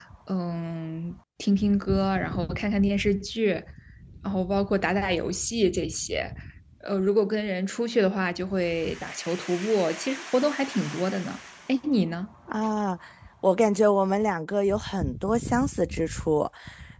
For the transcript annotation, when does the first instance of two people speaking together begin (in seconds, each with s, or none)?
none